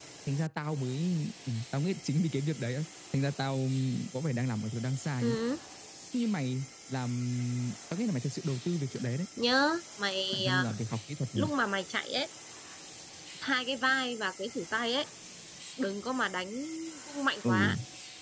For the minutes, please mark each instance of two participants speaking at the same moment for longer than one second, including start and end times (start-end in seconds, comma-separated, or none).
none